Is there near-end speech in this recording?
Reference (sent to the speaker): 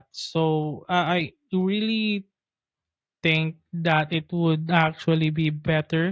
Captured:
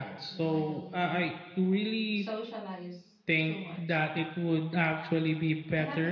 Yes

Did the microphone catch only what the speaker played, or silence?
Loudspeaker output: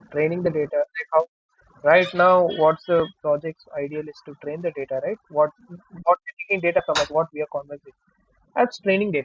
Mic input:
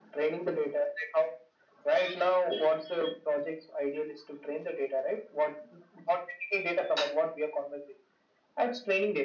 Yes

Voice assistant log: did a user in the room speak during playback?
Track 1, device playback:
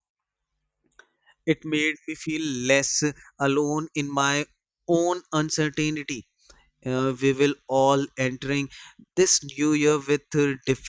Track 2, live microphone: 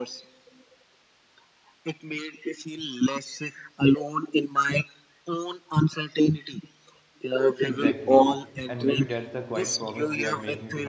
Yes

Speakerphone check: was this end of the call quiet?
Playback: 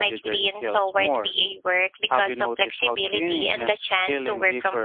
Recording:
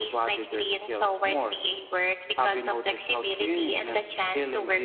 Yes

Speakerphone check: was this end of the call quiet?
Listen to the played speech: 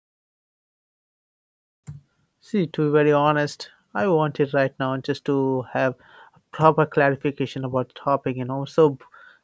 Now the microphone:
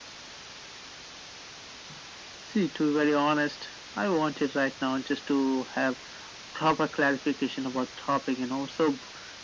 Yes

